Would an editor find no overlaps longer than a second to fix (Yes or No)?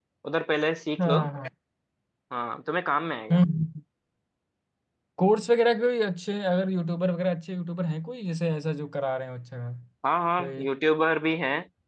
Yes